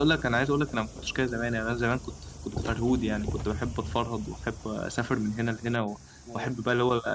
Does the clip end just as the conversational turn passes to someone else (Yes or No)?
No